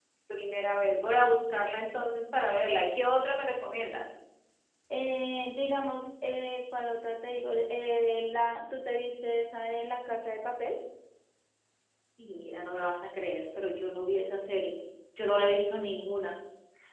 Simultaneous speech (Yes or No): No